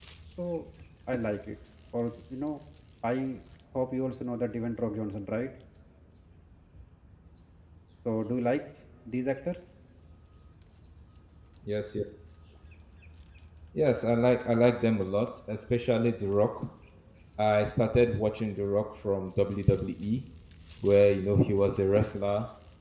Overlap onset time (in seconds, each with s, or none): none